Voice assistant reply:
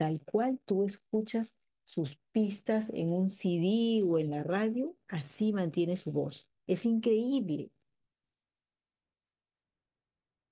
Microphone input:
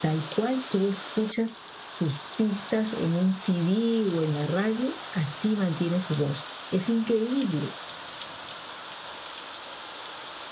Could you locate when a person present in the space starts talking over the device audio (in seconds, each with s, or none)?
none